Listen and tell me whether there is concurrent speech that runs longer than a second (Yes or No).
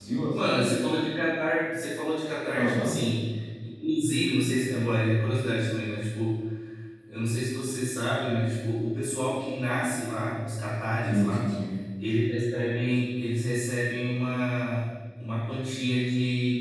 No